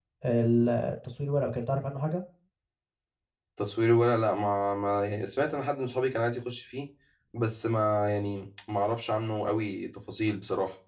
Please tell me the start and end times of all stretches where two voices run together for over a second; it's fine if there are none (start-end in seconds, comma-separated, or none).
none